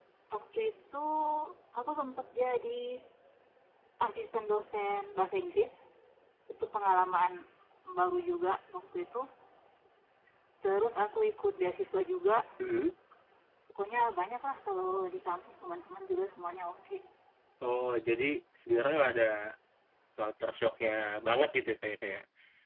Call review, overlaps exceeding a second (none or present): none